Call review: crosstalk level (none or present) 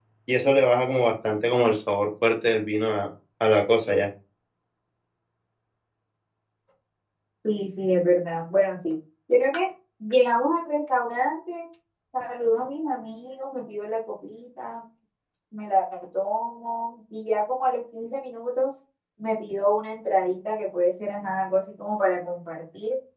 none